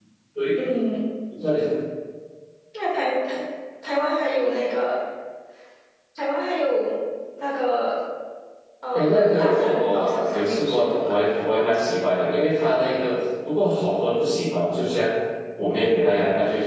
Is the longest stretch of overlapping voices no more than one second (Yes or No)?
No